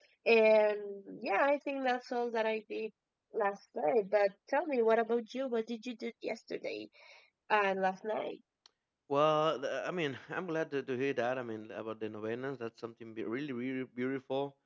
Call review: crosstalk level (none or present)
none